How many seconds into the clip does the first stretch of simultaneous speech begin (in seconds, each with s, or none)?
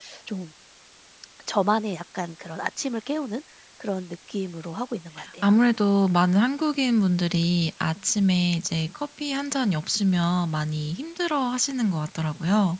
none